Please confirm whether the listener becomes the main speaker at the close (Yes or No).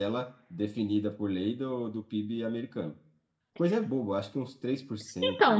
Yes